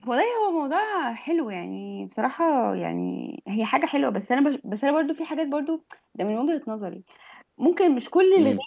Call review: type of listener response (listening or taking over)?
listening